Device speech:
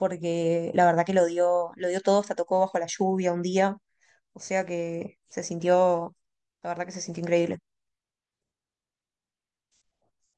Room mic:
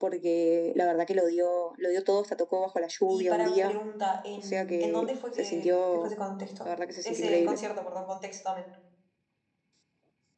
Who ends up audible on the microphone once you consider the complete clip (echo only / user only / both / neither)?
both